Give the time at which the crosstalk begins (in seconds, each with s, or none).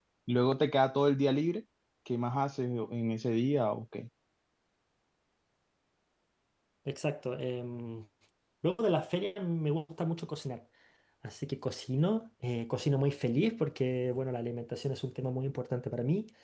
none